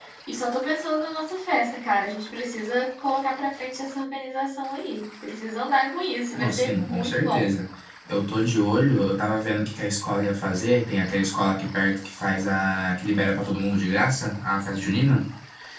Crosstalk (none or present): present